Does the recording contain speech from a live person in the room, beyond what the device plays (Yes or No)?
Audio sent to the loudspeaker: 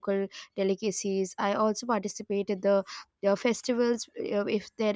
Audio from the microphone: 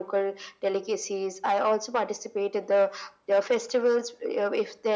No